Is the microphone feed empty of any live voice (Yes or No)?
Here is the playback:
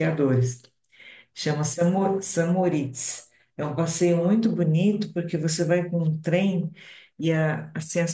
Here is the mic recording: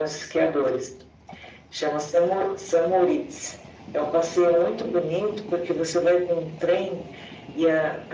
Yes